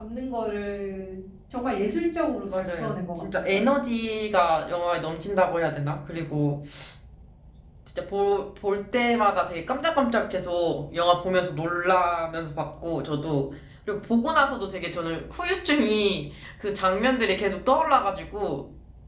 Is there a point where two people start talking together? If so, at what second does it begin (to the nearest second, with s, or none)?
2 s